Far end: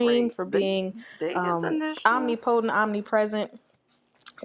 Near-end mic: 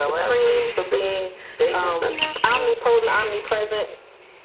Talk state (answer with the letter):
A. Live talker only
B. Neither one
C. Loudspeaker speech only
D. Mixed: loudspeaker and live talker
C